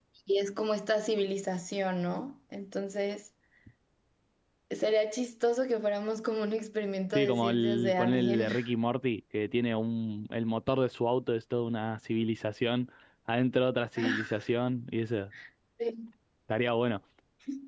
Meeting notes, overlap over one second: present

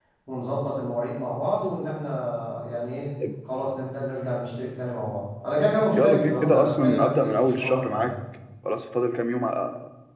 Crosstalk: present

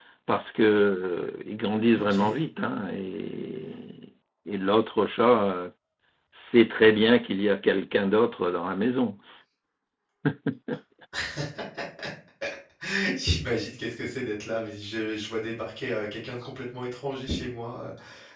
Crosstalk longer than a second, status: none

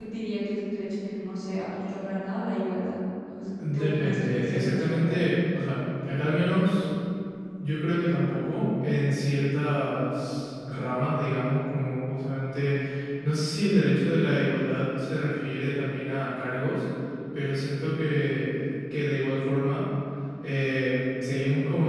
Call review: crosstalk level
present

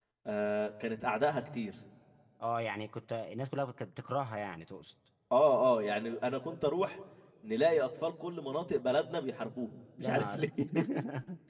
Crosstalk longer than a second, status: none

